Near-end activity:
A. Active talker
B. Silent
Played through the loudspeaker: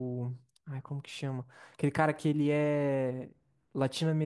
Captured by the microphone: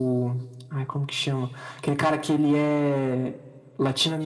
B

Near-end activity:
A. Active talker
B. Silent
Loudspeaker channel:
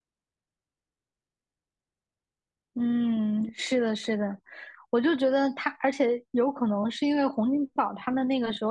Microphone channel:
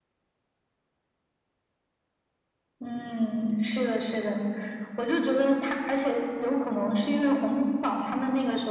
B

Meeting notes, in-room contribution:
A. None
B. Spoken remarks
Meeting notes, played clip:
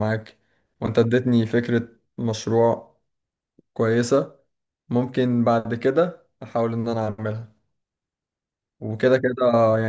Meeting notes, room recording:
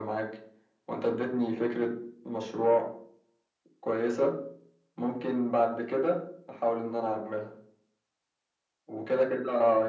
A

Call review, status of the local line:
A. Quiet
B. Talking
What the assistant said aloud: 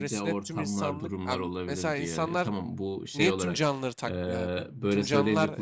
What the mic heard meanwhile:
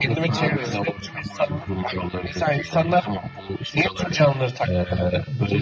B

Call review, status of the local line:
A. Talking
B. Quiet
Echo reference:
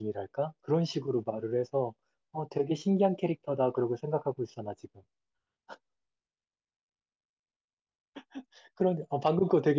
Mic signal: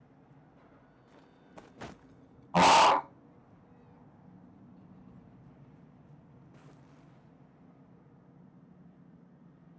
A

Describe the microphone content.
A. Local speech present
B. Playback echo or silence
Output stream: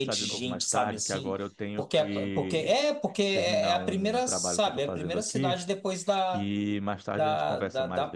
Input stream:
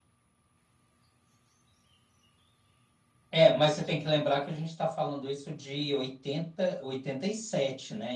A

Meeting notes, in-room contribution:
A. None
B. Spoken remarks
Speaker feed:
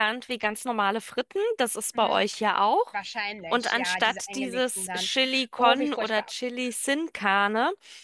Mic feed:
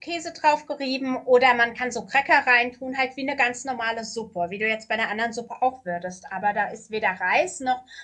B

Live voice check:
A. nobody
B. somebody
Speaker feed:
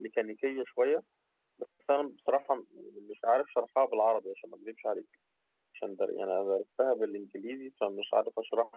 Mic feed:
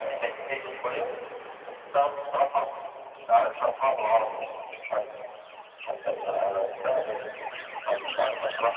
A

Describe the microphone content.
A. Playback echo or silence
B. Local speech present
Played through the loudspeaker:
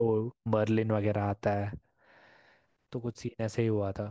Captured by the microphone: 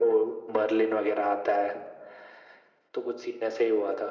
A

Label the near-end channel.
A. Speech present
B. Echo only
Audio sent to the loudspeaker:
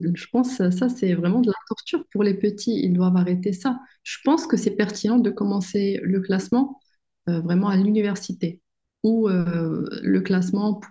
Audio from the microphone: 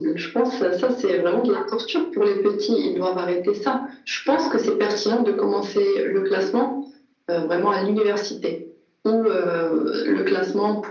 B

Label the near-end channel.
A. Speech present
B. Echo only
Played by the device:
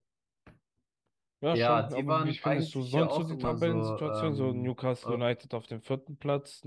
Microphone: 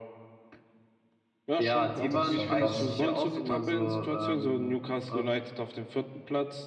A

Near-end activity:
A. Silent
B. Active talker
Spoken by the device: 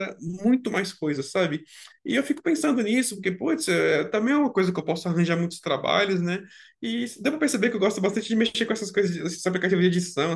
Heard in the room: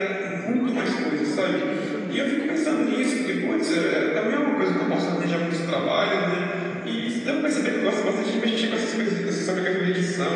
B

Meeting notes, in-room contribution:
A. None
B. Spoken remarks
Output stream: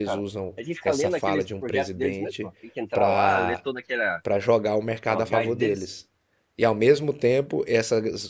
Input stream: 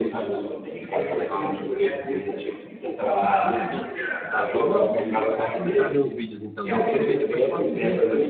B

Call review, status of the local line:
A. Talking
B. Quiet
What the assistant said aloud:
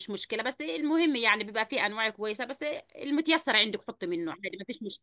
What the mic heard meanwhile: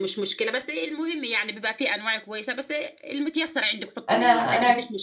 A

